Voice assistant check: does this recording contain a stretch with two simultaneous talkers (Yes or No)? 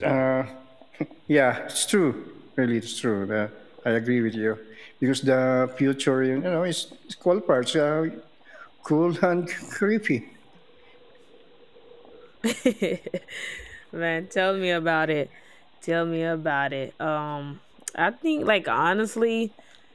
No